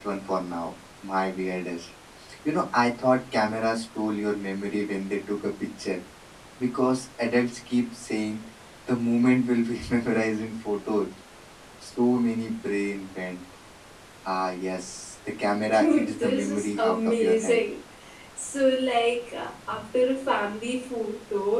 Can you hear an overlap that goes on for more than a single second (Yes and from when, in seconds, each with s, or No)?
Yes, from 15.7 s